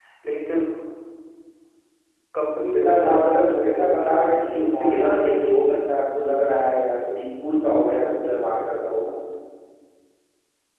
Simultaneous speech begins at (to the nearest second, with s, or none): 3 s